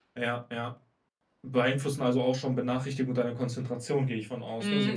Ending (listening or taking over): taking over